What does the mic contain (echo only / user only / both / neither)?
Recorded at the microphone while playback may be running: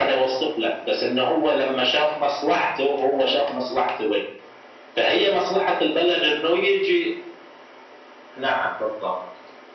echo only